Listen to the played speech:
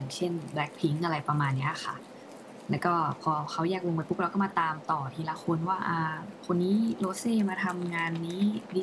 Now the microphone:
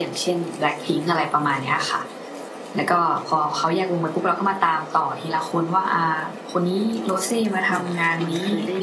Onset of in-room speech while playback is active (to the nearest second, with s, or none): 8 s